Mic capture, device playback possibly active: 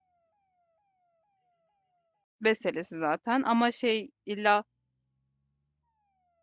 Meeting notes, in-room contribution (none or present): present